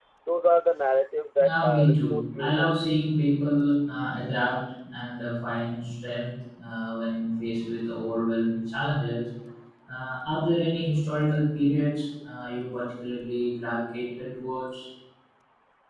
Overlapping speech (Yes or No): Yes